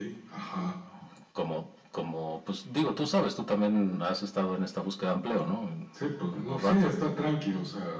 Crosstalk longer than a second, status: none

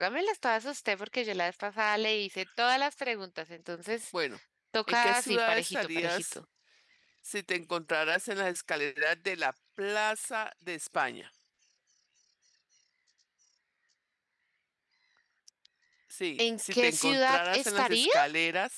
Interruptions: present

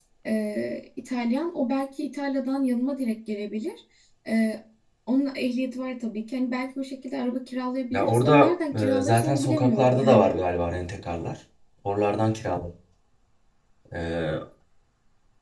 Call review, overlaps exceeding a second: present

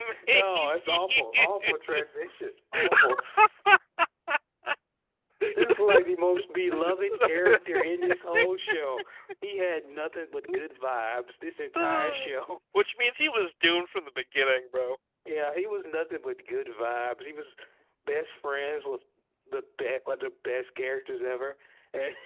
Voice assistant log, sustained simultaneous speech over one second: present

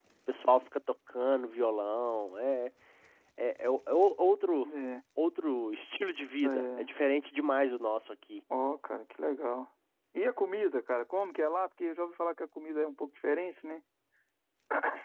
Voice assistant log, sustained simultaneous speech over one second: none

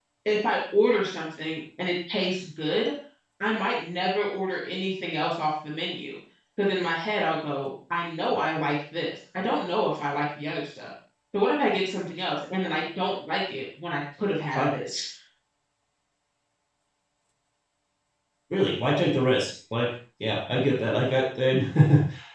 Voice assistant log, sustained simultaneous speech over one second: none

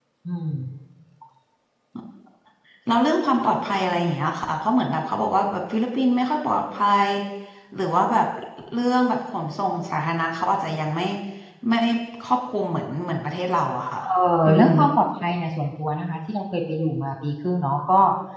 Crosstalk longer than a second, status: none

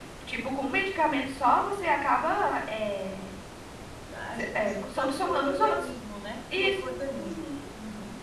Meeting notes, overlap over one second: present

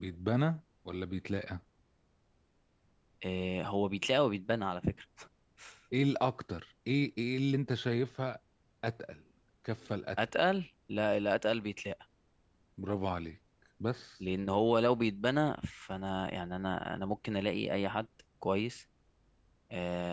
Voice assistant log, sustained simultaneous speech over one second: none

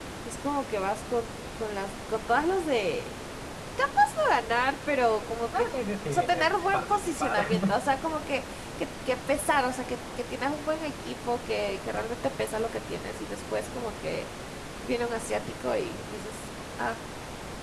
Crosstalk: present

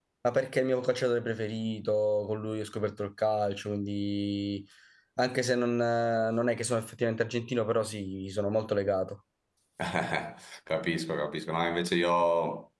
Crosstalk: none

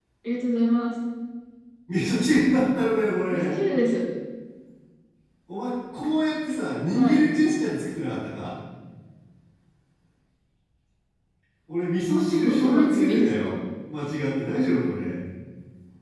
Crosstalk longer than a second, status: present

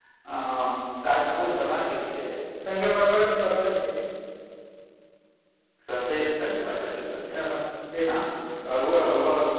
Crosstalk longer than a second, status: none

